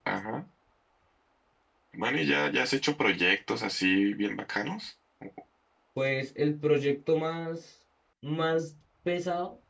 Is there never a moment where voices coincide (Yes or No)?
Yes